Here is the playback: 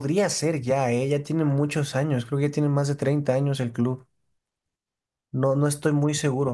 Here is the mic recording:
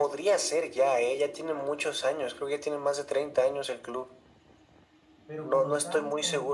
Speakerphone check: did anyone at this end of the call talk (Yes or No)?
Yes